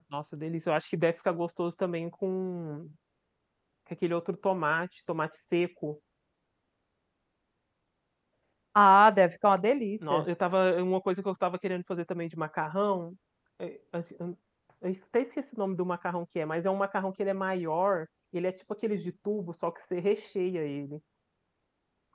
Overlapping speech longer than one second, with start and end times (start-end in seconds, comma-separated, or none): none